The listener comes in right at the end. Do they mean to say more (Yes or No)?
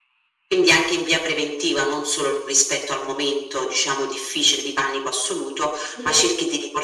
No